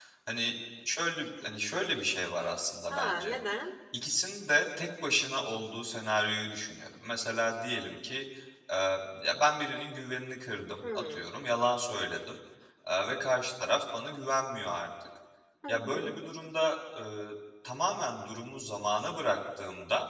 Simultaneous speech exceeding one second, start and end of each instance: none

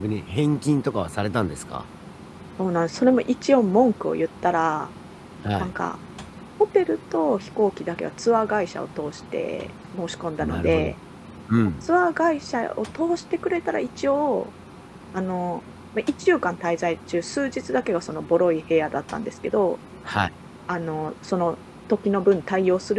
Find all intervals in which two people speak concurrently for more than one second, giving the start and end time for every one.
none

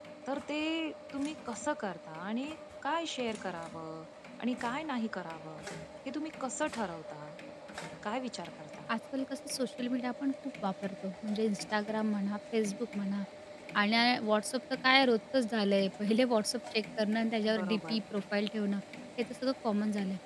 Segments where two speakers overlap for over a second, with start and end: none

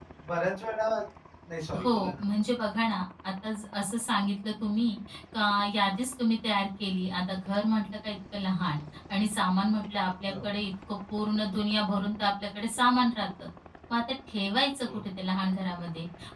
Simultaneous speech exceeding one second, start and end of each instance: none

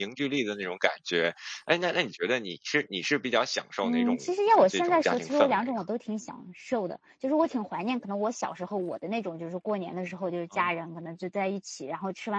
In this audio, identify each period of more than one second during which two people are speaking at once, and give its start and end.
4.6-5.8

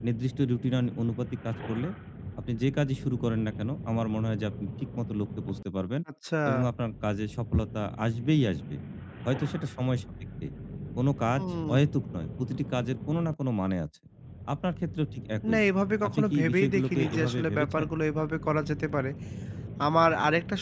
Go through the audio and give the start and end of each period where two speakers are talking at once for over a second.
16.1-17.9

